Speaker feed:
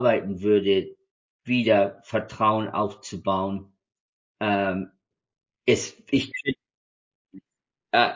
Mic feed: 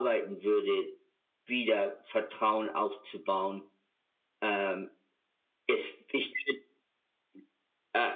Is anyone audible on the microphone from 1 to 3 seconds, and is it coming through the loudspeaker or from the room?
echo only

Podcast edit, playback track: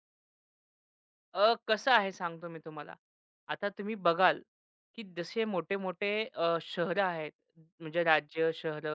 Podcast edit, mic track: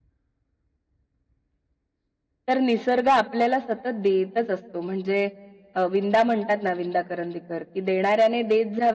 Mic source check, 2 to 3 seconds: user only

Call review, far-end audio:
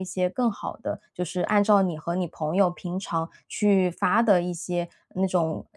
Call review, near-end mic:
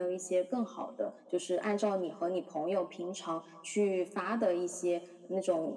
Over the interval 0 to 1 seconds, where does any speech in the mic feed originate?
echo only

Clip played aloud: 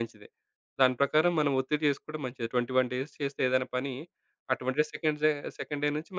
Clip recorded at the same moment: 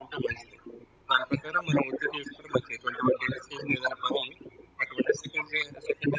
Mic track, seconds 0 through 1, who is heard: echo only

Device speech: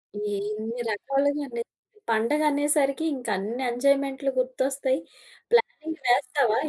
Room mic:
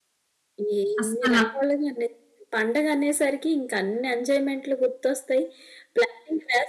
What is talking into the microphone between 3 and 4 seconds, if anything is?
echo only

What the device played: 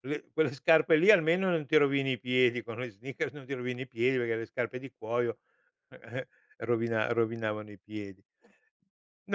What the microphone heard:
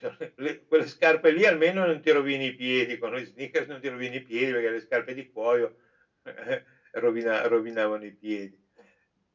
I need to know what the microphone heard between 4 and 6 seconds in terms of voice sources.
echo only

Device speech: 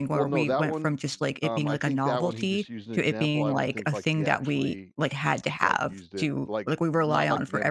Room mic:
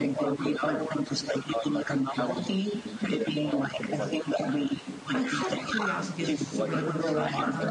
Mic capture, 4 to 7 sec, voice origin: both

